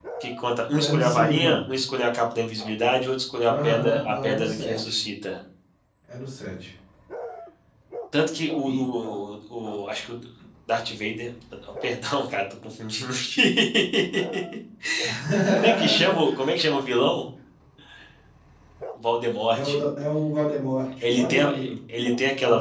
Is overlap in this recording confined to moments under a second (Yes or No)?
No